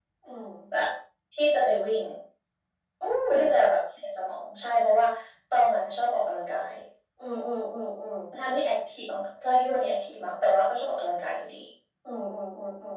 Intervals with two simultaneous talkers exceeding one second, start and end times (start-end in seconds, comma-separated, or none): none